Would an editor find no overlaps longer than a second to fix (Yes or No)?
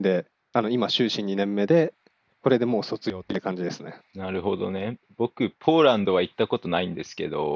Yes